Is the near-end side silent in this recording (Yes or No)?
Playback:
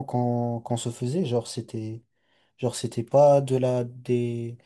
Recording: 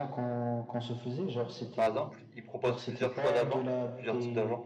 No